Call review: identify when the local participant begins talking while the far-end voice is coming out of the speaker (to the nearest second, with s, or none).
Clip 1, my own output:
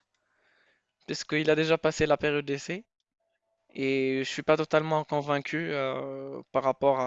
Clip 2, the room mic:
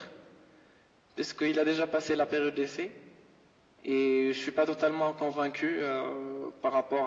none